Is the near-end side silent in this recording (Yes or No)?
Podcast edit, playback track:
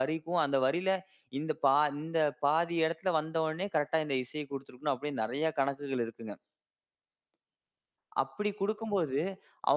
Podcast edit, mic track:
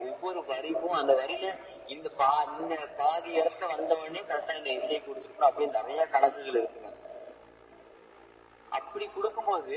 Yes